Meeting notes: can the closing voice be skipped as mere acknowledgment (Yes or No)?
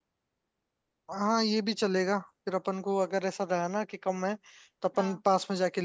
Yes